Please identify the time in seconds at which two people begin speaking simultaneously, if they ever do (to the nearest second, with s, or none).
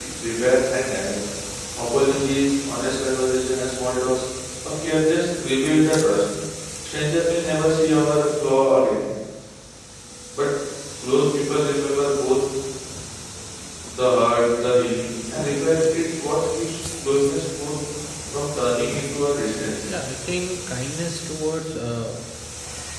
none